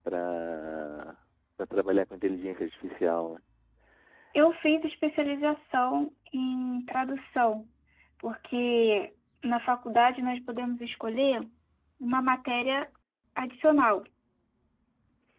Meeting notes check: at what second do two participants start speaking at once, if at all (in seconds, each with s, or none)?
none